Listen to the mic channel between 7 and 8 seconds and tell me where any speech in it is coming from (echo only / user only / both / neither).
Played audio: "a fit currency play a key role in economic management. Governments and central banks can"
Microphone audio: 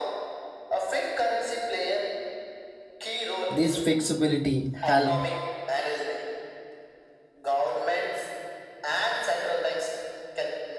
echo only